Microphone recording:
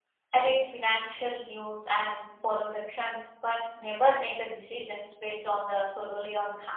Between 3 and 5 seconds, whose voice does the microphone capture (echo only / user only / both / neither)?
user only